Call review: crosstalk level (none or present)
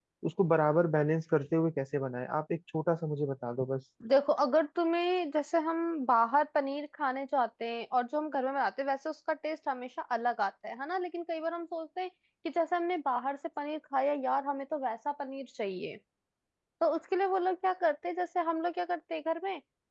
none